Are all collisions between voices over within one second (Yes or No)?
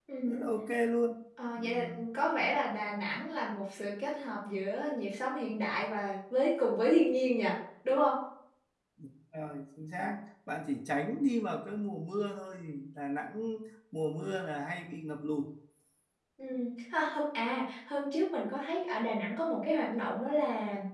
Yes